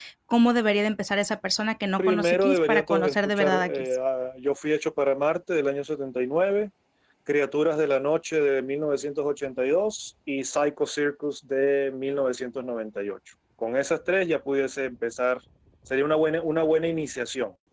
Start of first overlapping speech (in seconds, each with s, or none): 2.0 s